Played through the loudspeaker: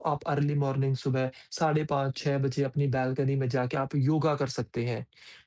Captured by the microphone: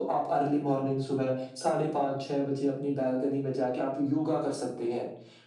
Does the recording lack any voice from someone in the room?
Yes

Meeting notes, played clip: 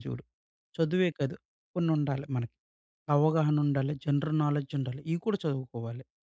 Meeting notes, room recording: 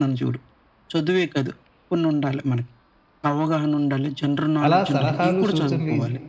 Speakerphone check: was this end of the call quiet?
No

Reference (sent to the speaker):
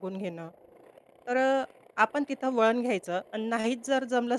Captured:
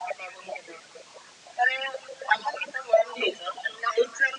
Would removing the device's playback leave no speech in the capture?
Yes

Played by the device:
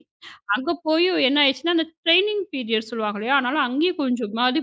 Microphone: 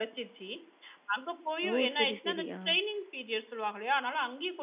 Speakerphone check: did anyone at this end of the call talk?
Yes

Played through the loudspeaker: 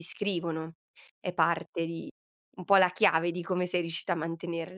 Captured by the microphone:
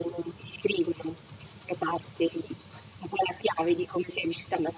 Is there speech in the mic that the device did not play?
No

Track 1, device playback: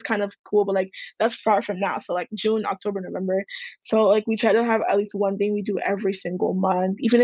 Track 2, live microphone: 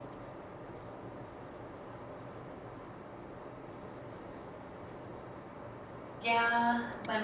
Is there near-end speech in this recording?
Yes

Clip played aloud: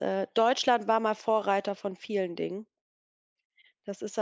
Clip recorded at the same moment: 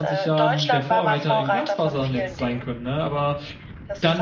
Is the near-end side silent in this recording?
No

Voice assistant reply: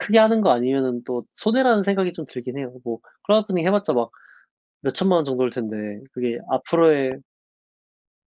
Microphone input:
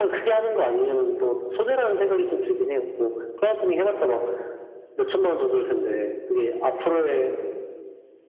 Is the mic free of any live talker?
Yes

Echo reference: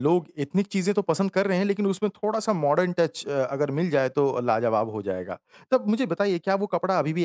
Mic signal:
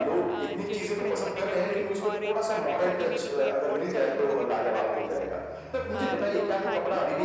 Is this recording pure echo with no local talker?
No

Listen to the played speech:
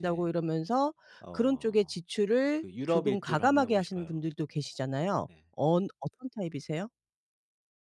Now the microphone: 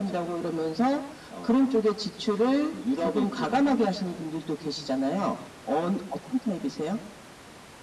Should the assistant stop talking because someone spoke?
No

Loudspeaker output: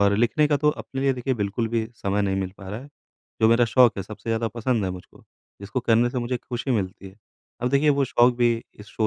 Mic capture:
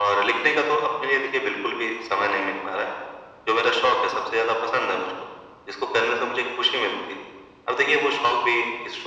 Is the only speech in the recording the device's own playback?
Yes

